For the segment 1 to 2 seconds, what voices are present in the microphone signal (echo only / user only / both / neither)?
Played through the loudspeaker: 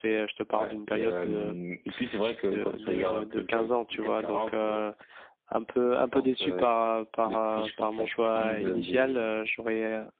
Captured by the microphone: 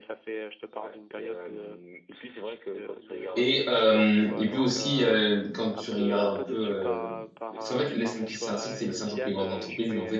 echo only